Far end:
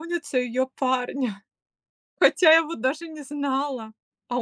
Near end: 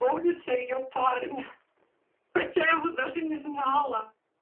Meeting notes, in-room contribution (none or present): none